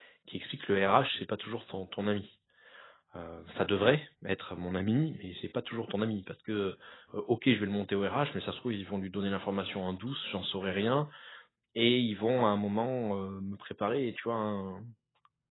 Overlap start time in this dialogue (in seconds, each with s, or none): none